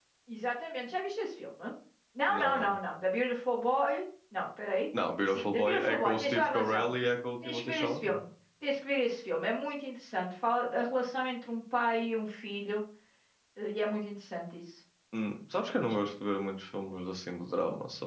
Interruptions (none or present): present